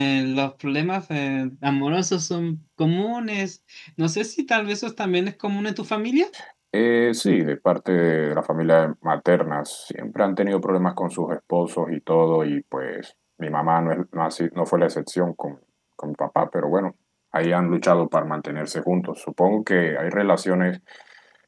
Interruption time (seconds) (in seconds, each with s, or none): none